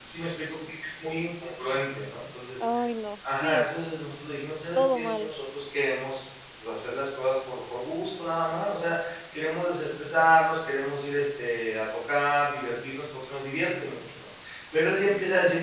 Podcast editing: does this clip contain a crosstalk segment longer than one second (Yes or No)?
No